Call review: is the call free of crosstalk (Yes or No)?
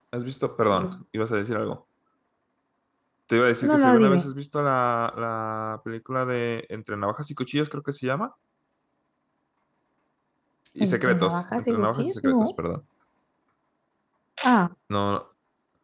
No